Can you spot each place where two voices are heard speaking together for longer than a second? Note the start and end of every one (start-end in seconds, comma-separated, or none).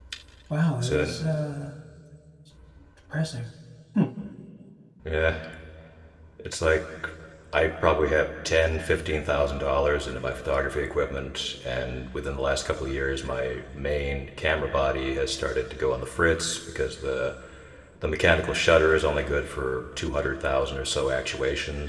none